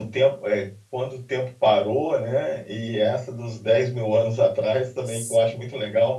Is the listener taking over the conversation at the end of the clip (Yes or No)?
No